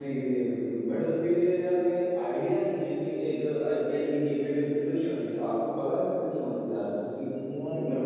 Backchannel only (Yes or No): No